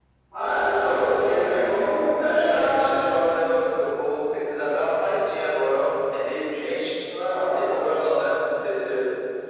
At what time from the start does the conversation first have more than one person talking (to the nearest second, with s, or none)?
1 s